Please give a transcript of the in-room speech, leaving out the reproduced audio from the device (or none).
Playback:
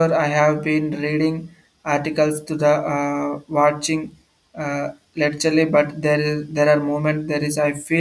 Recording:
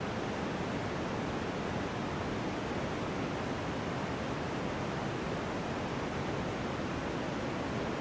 none